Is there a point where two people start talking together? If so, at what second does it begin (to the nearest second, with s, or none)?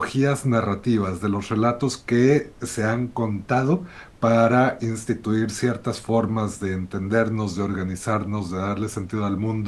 none